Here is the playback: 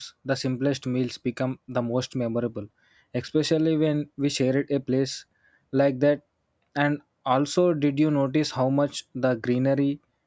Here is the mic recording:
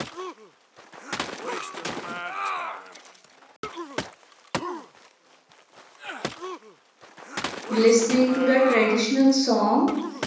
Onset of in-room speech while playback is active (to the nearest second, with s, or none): 8 s